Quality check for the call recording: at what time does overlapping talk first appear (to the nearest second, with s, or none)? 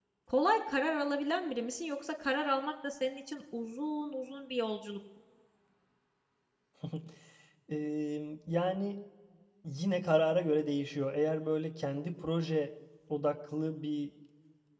none